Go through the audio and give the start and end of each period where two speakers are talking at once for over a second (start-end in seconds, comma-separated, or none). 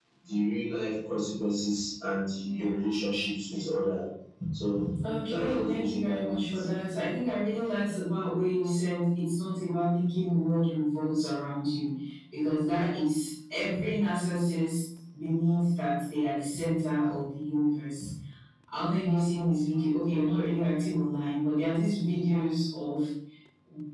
5.3-6.6